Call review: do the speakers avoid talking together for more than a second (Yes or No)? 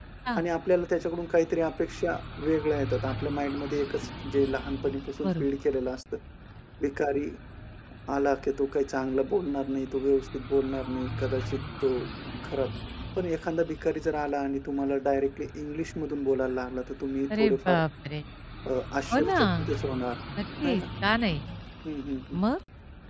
Yes